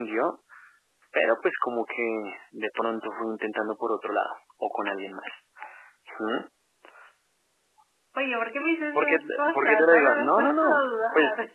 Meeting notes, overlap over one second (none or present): present